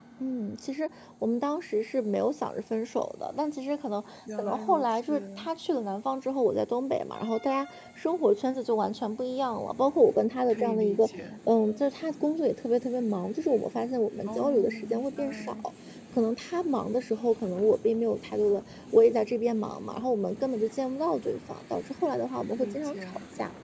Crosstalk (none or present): present